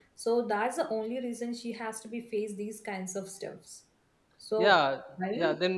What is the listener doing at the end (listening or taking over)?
taking over